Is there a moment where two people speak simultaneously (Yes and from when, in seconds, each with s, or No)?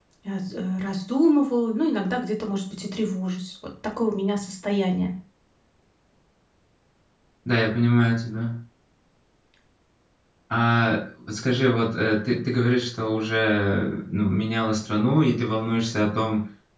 No